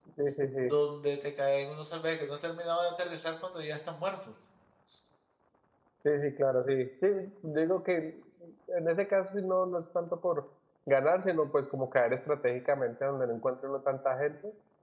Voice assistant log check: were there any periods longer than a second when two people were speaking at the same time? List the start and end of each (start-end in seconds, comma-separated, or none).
none